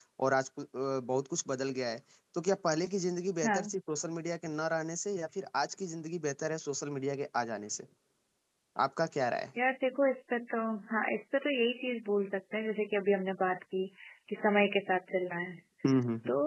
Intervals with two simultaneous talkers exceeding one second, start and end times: none

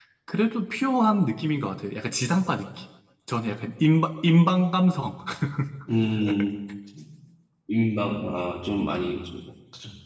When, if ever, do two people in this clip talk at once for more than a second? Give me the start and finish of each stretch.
none

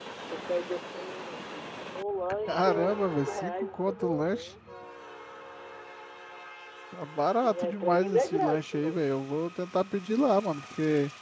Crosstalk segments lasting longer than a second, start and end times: 2.5-4.5, 7.4-9.0

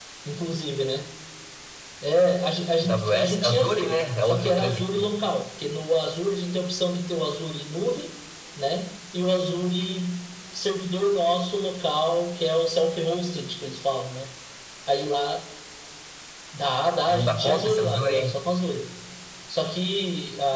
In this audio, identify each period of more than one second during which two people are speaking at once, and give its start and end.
2.8-5.0, 17.1-18.3

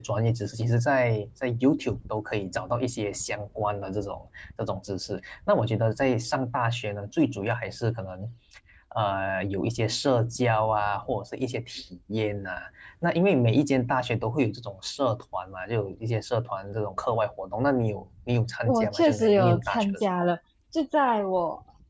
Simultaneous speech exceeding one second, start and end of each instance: 18.6-20.3

